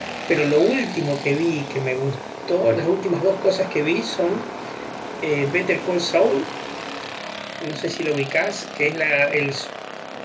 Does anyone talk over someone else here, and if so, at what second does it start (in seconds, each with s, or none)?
none